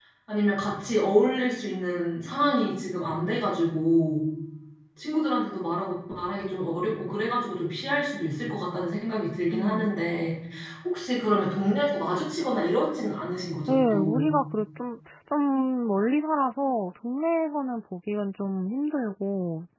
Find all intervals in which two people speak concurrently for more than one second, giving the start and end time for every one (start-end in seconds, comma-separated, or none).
none